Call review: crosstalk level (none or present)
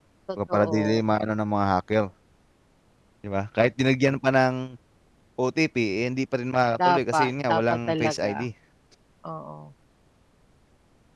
present